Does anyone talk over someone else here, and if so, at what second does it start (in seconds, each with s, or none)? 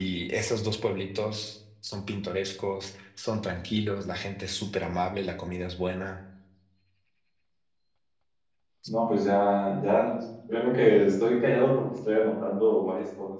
none